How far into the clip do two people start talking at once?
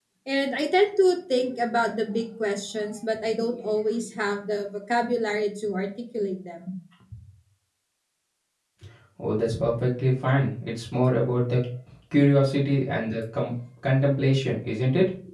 none

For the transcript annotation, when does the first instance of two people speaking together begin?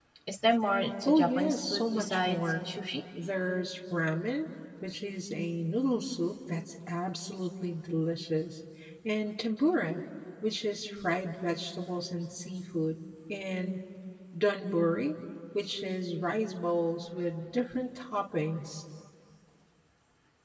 1.1 s

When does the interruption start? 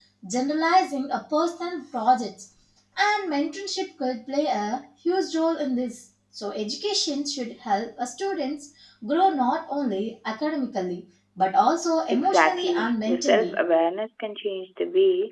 12.1 s

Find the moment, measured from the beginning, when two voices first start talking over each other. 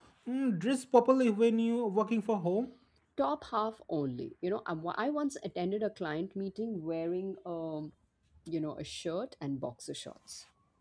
none

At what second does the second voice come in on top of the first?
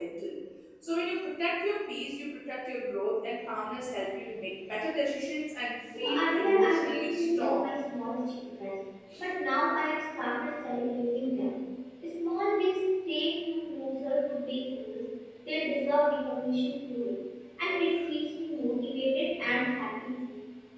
5.9 s

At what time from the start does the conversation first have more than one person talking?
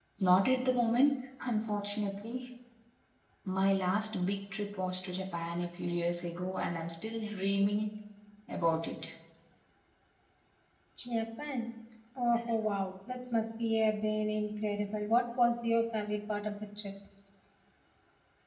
none

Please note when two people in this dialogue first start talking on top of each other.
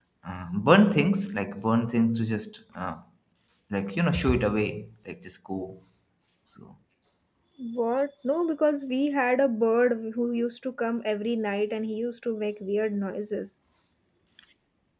none

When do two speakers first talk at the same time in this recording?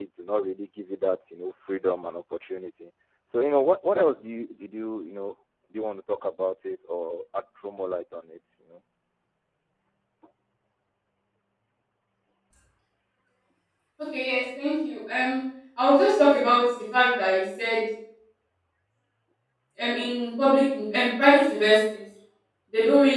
none

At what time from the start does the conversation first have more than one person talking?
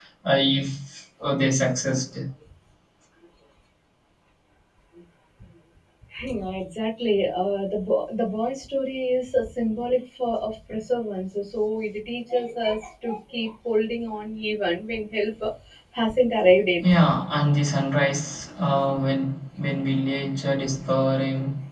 none

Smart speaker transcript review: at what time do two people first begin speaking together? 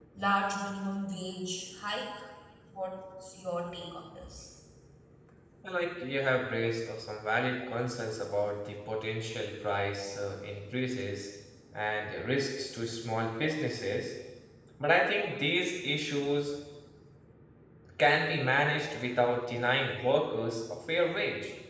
none

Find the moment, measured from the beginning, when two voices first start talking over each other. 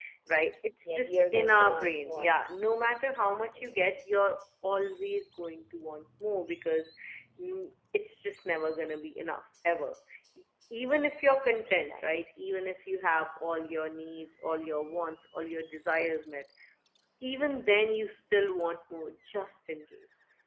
0.8 s

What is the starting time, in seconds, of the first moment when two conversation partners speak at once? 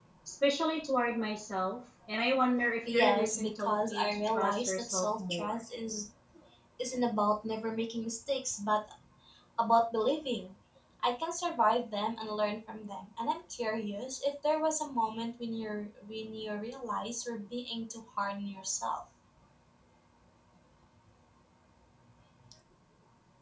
2.9 s

